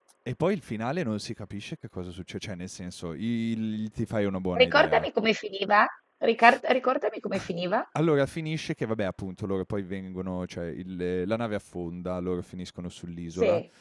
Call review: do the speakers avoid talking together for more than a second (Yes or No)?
Yes